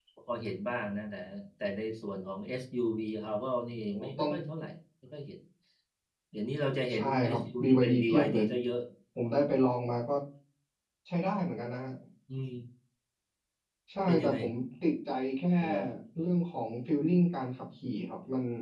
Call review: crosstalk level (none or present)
present